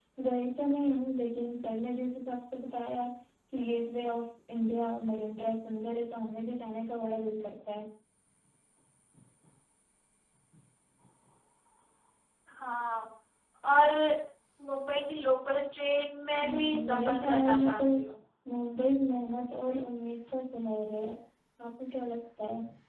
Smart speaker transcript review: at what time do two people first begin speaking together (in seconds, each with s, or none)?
16.4 s